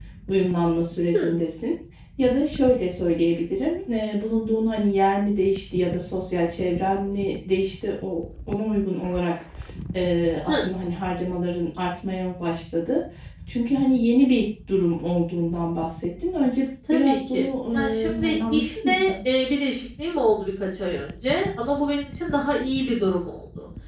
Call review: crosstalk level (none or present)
present